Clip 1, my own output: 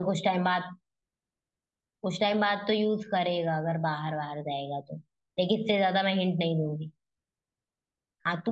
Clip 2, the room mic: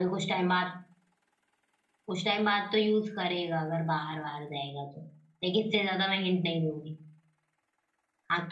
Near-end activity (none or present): none